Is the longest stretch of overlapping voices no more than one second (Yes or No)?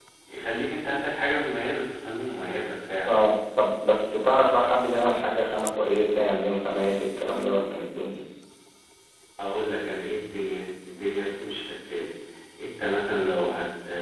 Yes